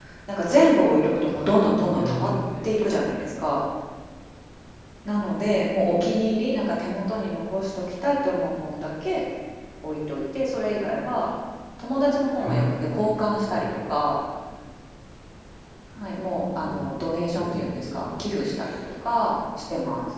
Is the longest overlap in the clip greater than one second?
Yes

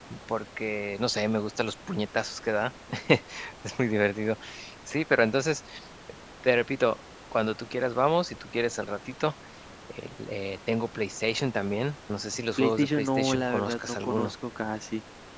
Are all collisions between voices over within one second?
No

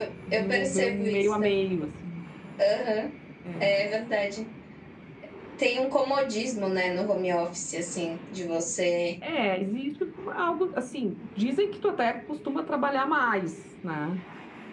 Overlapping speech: Yes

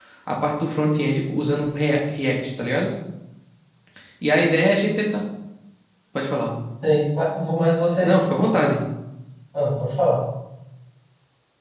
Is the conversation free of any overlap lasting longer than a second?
Yes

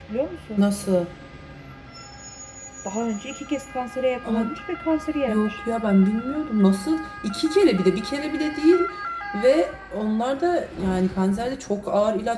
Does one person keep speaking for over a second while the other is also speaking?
No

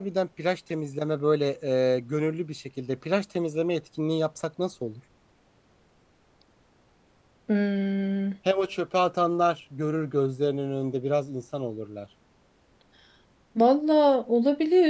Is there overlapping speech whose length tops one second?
No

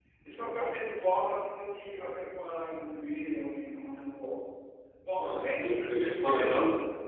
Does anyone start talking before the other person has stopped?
Yes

